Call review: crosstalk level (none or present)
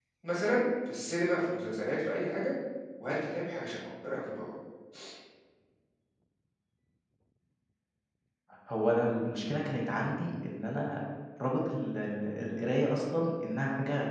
none